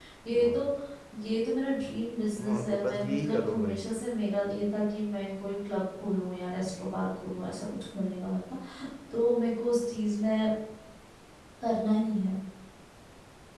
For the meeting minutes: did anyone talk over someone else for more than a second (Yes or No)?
Yes